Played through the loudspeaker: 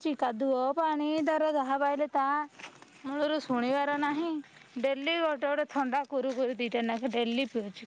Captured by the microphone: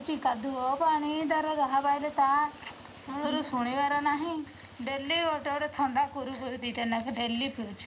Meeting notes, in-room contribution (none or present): present